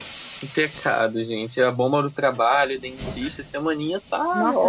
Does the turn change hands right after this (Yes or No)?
Yes